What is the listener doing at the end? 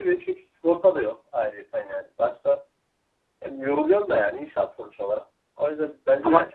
listening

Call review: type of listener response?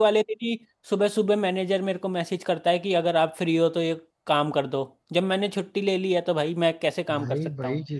taking over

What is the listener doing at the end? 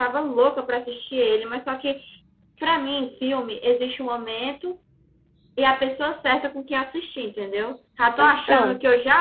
listening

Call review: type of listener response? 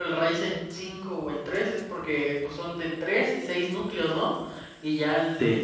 listening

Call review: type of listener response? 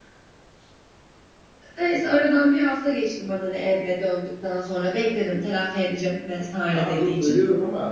taking over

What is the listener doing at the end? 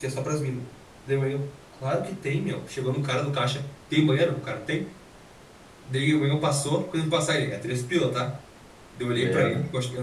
listening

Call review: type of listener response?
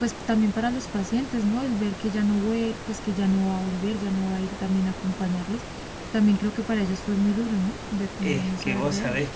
taking over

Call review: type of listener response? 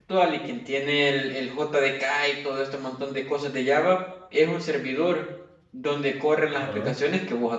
listening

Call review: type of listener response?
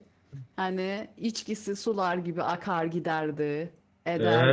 taking over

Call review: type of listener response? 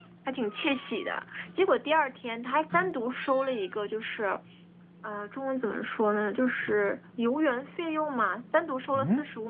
listening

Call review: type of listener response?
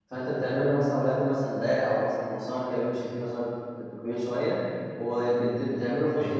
listening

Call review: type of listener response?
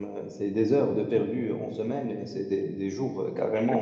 listening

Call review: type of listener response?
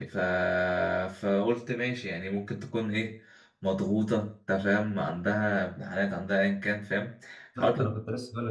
taking over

